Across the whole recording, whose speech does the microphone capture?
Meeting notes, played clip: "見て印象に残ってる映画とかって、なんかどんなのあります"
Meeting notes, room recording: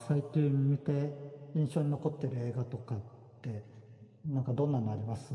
echo only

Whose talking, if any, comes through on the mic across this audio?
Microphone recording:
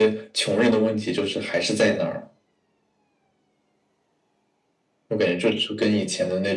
echo only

